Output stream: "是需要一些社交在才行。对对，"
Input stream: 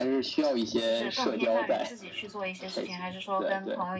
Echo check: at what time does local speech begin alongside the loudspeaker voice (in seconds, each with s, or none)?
0.8 s